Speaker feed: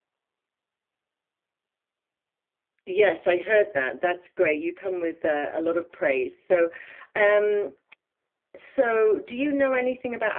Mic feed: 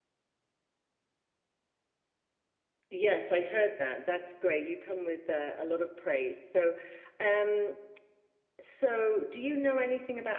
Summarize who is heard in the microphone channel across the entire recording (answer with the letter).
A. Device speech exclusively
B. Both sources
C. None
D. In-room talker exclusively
A